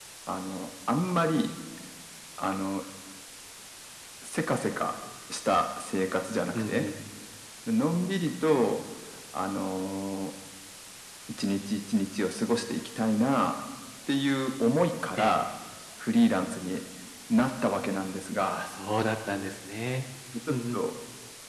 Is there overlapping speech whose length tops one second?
No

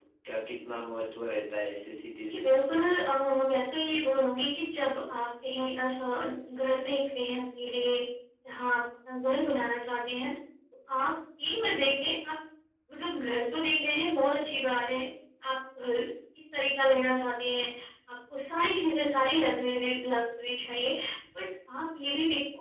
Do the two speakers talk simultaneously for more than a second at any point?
No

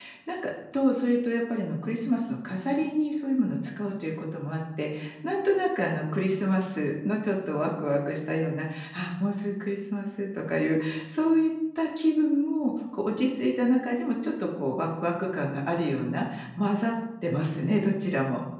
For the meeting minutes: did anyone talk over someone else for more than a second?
No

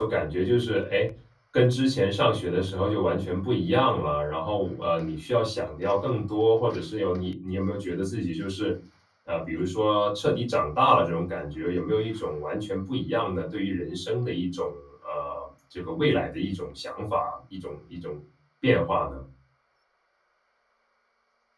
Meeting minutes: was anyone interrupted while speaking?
No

